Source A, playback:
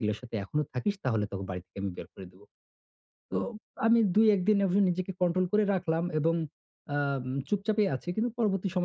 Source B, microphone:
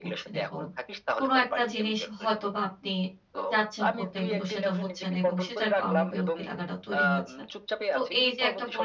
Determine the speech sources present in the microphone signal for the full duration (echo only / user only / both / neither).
both